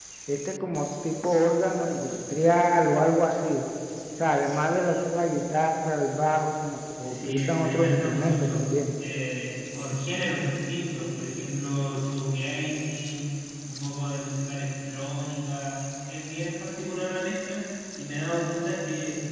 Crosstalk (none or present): present